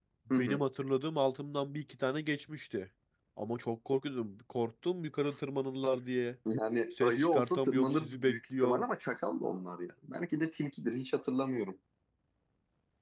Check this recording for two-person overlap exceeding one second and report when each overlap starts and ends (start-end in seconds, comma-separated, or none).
7.0-8.8